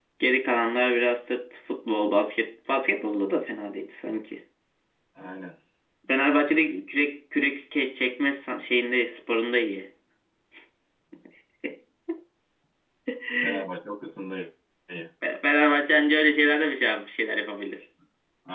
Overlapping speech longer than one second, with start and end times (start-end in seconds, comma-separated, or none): none